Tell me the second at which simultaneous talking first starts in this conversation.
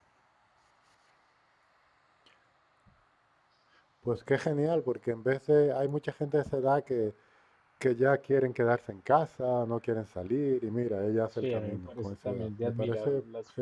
11.4 s

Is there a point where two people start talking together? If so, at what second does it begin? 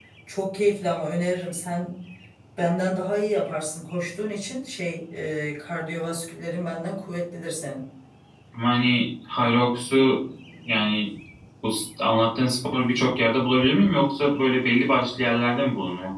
none

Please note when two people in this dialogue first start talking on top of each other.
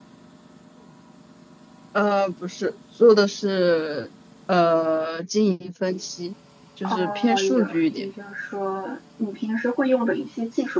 6.8 s

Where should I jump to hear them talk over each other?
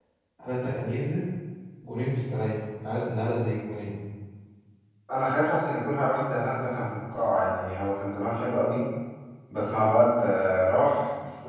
none

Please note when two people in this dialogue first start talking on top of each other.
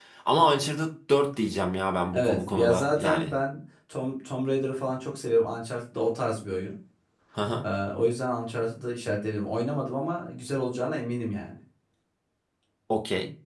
2.1 s

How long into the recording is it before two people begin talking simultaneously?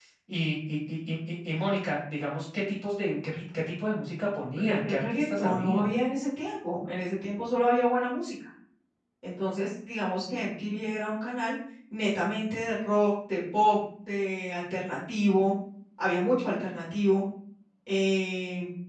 4.6 s

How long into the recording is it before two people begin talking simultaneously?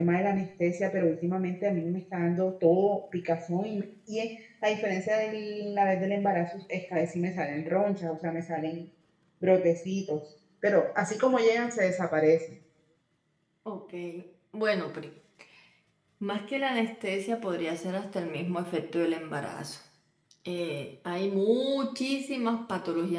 none

